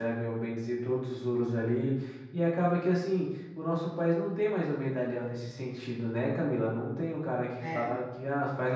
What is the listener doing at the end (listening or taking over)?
listening